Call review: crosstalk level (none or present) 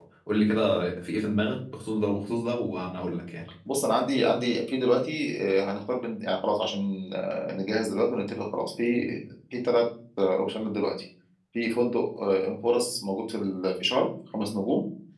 none